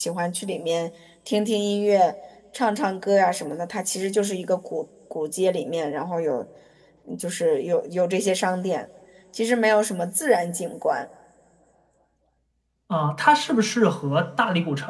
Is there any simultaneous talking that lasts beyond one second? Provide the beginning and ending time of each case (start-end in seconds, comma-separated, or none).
none